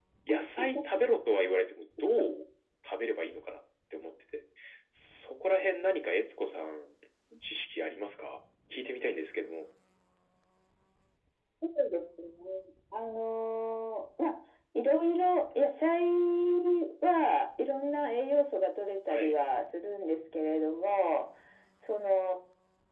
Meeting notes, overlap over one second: none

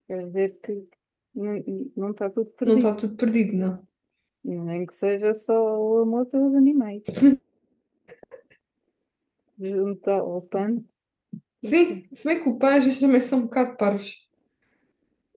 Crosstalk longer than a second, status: none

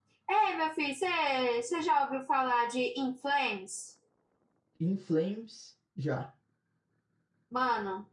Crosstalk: none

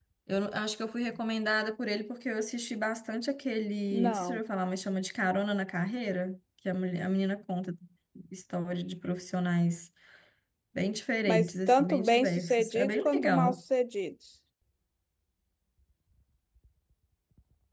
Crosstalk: present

